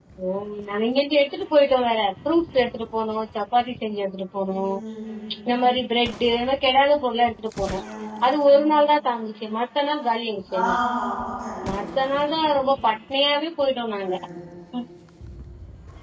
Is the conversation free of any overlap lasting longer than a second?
Yes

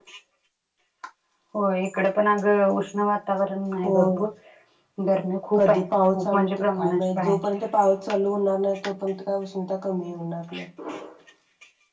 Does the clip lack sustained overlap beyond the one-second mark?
No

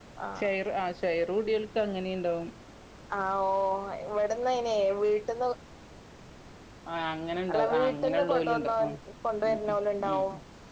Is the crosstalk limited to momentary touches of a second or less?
No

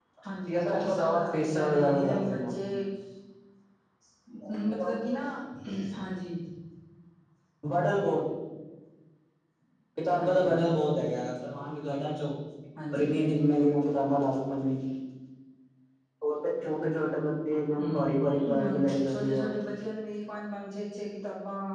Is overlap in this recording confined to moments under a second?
No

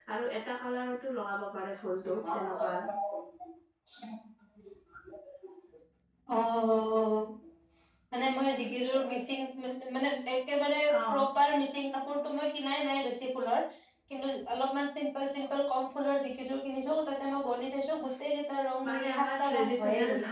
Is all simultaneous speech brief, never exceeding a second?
No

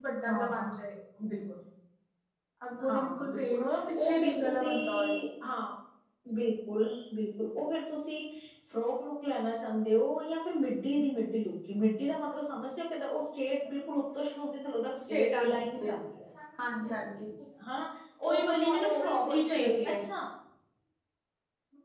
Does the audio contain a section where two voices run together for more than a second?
Yes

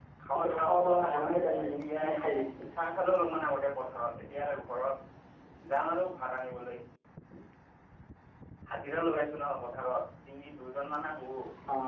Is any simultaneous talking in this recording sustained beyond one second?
Yes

